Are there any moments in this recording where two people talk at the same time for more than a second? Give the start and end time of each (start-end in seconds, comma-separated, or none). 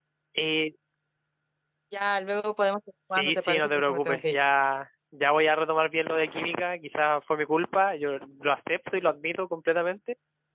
3.1-4.4